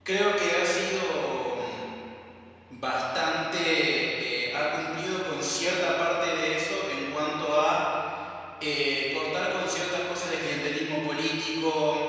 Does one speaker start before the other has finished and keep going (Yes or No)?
No